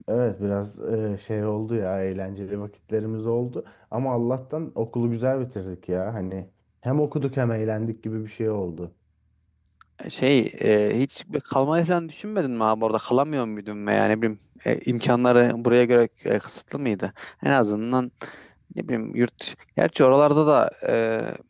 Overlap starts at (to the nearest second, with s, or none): none